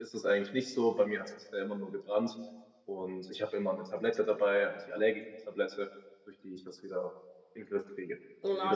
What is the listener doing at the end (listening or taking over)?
taking over